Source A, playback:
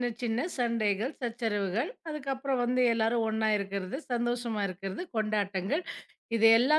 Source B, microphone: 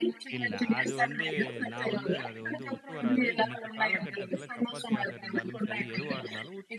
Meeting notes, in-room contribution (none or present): present